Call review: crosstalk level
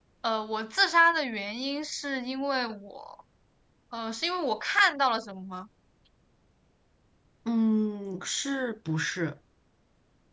none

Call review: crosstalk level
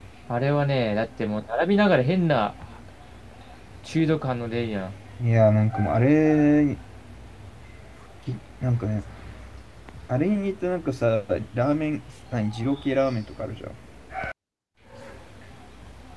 none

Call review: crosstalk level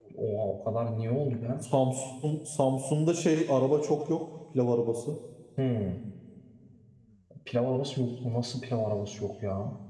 none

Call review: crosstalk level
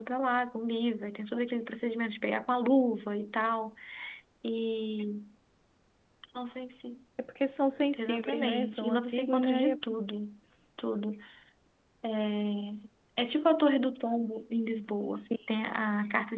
present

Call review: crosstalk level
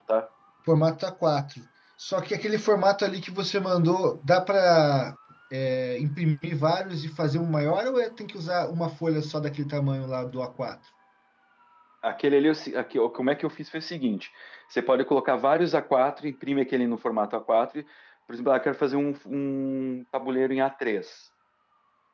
none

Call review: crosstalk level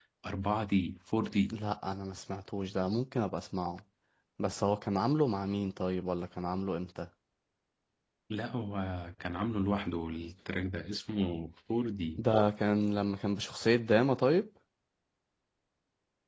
none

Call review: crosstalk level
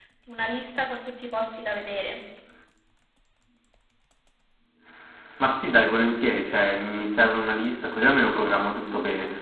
none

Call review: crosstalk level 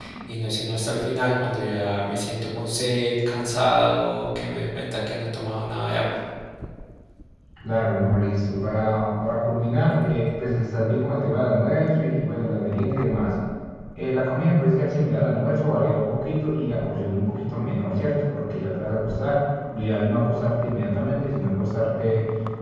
none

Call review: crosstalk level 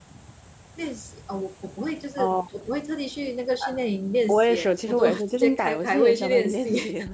present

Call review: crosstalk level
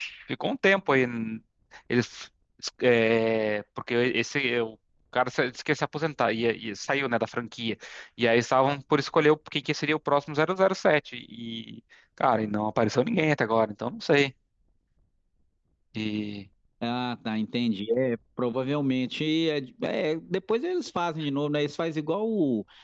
none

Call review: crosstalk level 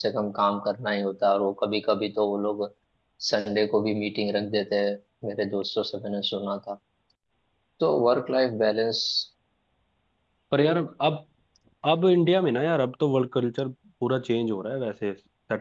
none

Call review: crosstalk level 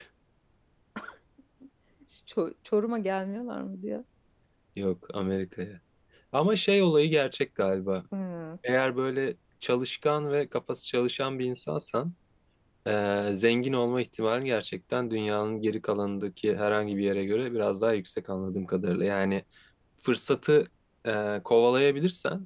none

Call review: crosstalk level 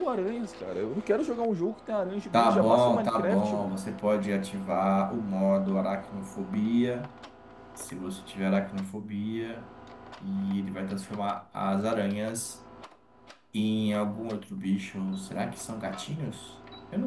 present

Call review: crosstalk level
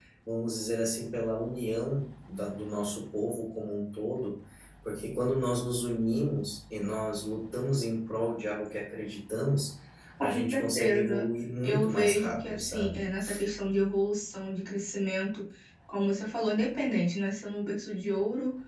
present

